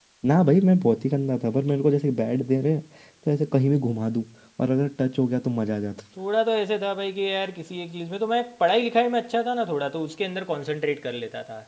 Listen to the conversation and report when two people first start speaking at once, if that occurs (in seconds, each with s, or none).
none